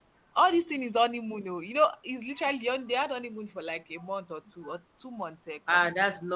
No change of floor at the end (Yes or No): No